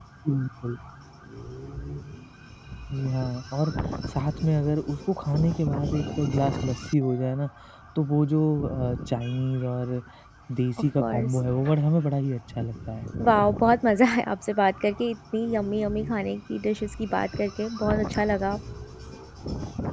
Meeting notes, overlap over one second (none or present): none